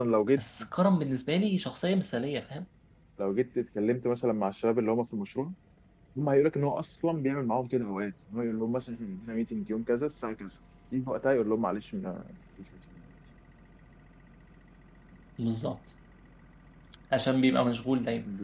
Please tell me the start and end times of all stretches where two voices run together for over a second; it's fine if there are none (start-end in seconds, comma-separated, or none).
none